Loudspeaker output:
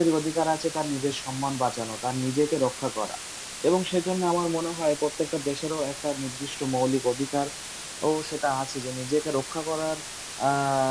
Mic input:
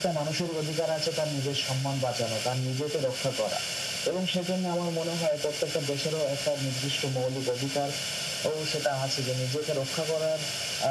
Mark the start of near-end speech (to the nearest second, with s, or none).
none